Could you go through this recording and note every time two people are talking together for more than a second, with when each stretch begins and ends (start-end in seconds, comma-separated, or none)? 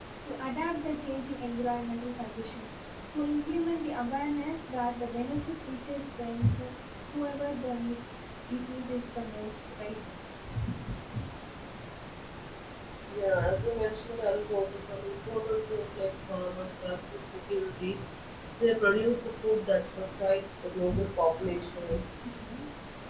none